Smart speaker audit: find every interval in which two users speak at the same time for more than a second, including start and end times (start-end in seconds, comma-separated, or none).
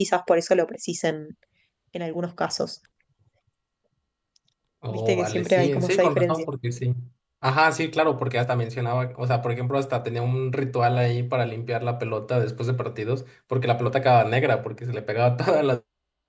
4.9-6.5